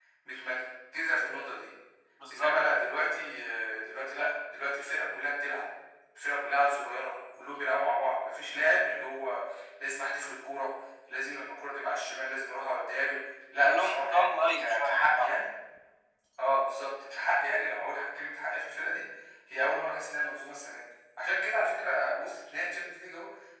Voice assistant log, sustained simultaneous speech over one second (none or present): present